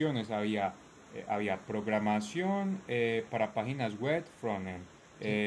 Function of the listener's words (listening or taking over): listening